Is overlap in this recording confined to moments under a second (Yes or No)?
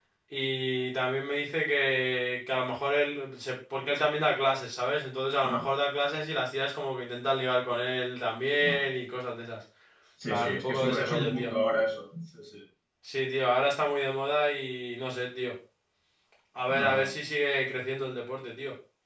No